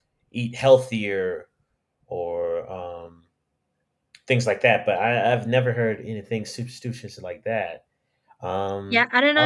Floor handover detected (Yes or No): Yes